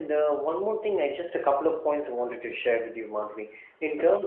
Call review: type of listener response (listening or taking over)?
listening